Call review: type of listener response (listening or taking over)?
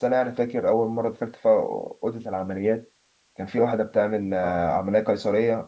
listening